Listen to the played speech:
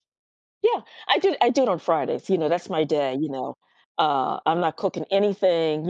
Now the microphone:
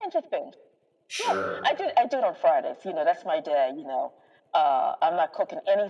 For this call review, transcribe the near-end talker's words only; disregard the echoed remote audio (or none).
Sure.